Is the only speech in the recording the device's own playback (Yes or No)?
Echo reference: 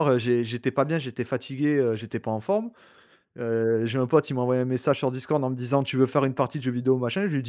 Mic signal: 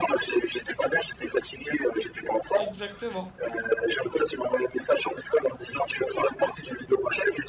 No